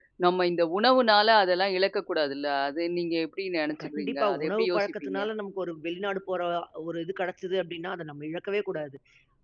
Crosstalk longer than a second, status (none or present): present